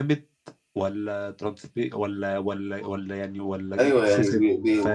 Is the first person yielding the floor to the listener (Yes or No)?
Yes